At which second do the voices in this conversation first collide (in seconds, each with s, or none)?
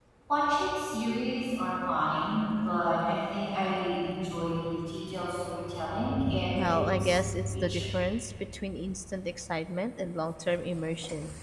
6.5 s